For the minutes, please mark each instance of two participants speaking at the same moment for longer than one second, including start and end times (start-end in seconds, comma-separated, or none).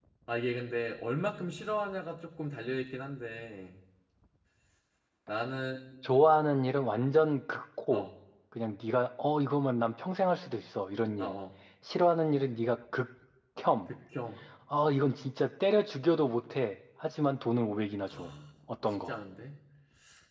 none